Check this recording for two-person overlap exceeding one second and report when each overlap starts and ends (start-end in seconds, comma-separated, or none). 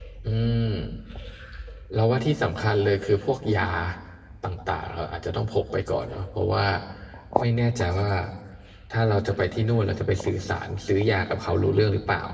none